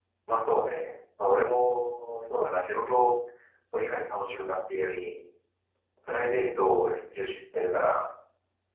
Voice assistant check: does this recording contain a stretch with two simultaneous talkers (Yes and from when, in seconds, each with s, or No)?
No